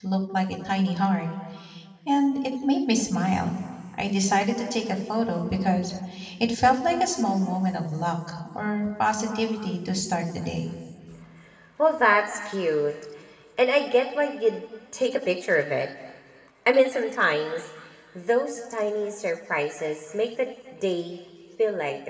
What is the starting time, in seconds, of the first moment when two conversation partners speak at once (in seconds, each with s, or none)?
none